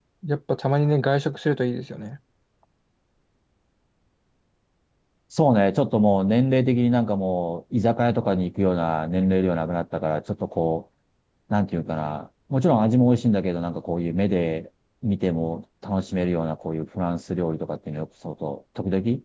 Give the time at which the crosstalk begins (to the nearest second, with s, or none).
none